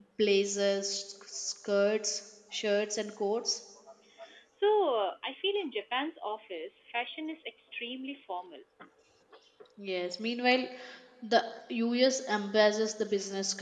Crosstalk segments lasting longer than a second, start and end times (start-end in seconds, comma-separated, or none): none